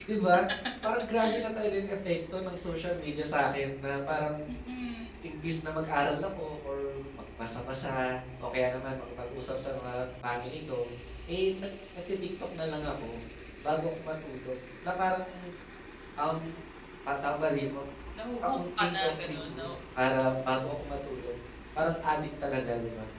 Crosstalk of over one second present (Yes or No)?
Yes